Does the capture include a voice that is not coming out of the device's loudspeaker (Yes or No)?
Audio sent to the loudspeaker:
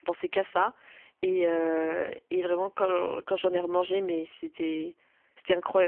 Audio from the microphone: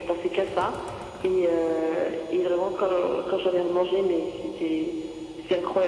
No